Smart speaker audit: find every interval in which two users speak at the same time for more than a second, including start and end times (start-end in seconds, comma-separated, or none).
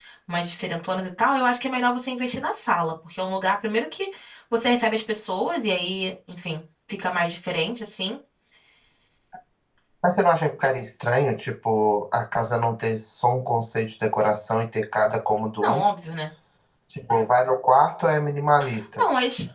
none